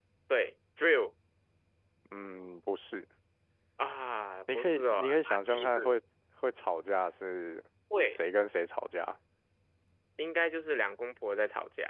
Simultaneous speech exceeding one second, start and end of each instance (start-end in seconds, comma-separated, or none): 4.5-5.9